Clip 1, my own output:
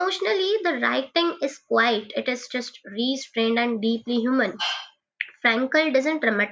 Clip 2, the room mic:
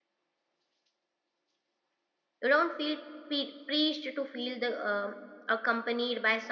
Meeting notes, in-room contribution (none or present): present